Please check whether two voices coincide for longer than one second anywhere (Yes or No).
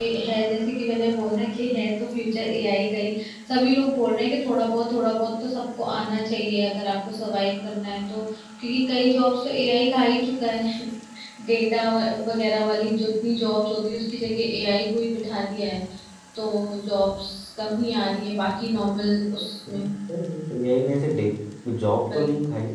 No